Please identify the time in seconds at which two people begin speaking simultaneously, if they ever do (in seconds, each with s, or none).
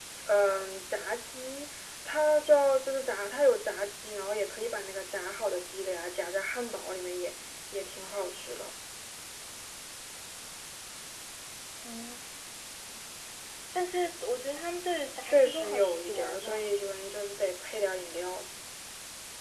15.2 s